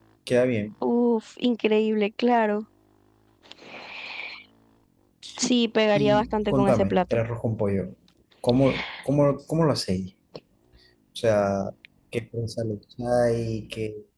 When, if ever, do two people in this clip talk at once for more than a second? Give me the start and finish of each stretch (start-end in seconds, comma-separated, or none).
6.0-7.2